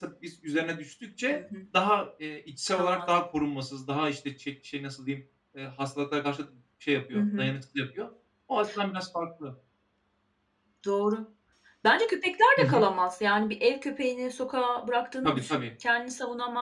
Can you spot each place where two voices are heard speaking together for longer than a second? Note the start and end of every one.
none

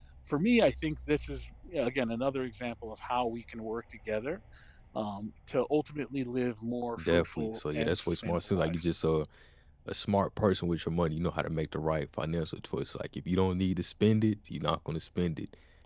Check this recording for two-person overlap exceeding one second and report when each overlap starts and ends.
7.0-8.9

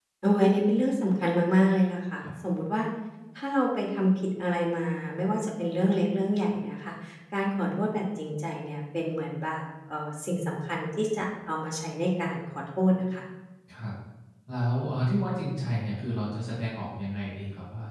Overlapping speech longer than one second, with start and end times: none

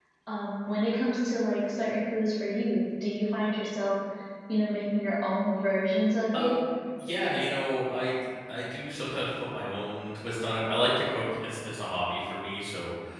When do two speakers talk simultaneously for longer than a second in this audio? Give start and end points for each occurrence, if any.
none

